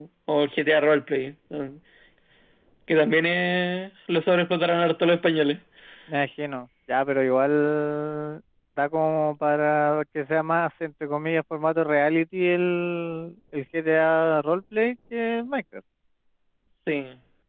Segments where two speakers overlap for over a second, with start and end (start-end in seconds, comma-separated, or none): none